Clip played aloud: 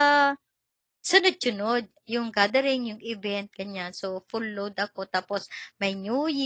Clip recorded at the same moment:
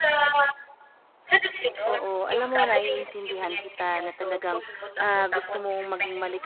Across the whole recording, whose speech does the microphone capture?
both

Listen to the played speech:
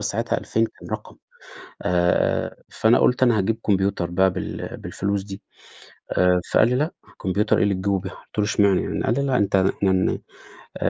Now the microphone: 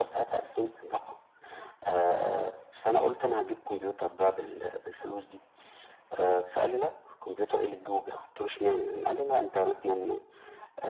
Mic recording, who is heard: echo only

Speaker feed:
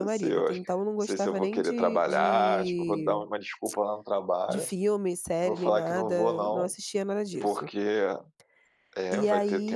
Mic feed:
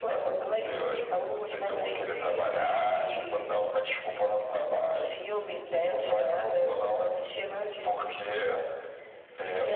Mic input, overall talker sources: echo only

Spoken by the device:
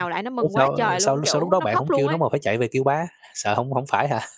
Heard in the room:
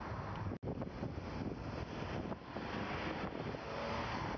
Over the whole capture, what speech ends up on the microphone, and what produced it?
neither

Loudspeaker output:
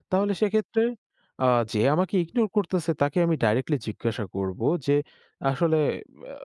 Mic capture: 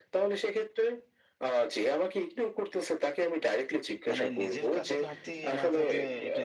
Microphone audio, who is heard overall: both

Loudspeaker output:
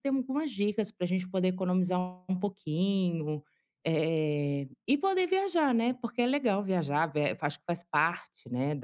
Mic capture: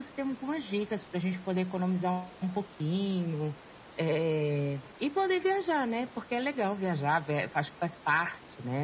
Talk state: echo only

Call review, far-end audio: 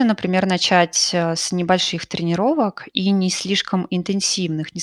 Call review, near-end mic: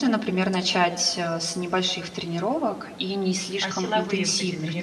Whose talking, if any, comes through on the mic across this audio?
both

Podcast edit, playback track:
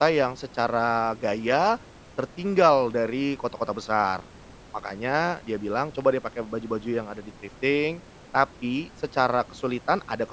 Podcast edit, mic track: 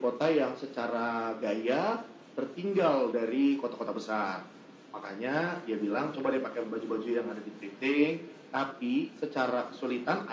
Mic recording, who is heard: echo only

